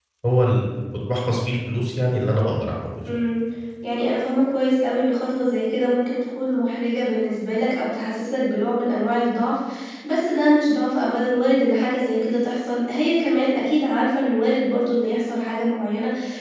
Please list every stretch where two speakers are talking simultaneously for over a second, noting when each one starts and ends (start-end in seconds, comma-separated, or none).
none